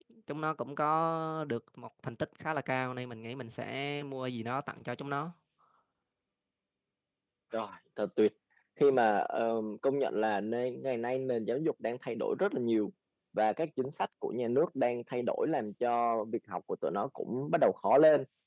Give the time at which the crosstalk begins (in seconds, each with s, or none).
none